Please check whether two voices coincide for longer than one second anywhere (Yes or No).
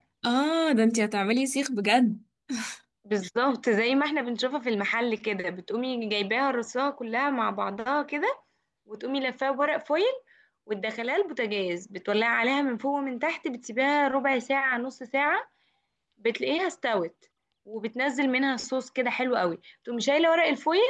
No